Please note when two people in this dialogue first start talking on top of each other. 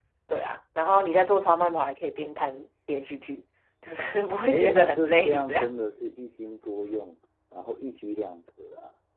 4.5 s

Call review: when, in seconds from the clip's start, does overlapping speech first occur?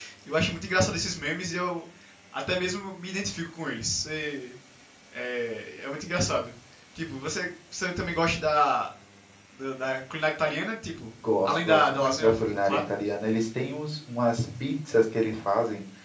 11.4 s

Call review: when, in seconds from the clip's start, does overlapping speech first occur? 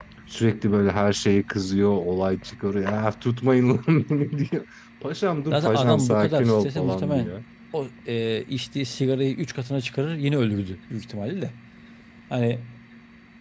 5.5 s

